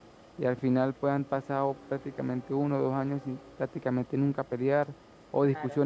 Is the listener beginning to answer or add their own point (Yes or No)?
No